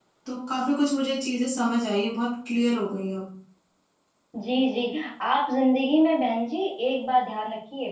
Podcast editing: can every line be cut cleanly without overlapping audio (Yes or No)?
Yes